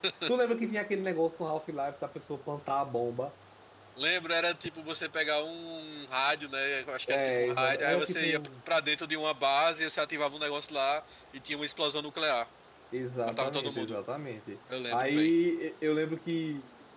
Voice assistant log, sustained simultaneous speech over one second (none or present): present